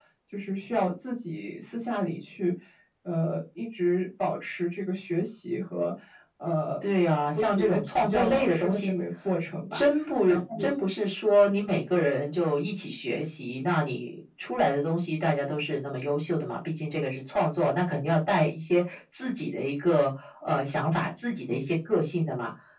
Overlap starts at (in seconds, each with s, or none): 7.3 s